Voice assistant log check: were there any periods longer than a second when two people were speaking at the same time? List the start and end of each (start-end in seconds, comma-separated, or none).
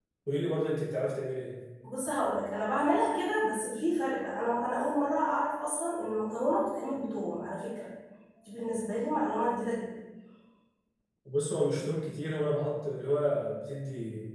none